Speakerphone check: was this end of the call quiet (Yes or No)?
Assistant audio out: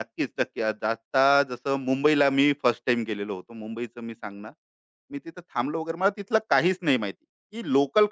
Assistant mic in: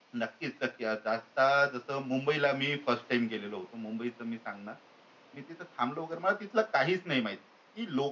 Yes